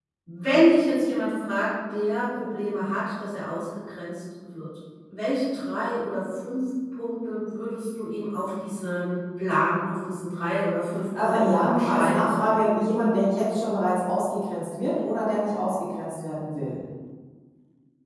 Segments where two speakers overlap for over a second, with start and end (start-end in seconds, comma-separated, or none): 11.2-12.5